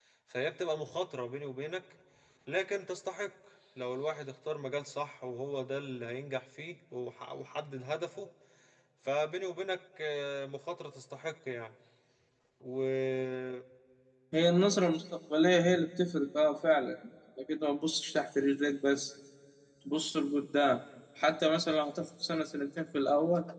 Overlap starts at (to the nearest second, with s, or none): none